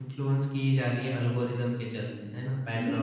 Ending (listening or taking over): taking over